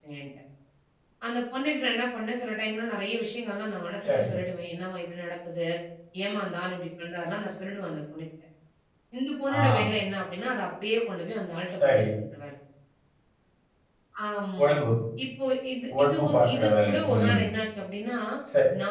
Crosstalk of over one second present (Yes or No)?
Yes